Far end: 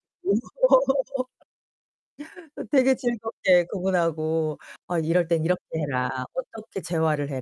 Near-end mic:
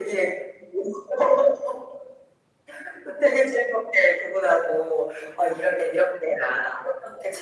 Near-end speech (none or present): none